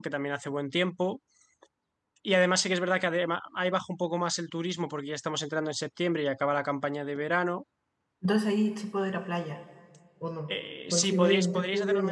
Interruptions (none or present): present